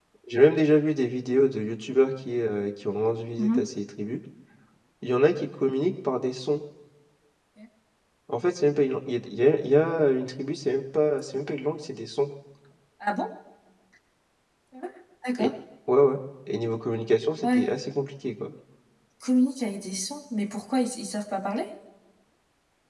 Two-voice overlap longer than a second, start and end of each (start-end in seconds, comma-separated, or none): none